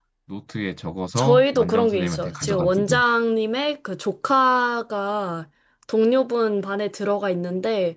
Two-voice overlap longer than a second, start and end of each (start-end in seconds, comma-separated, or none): 1.2-3.0